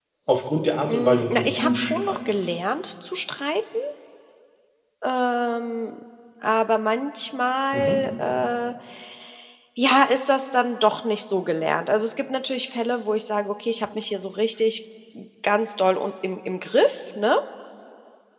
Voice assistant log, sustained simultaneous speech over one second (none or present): present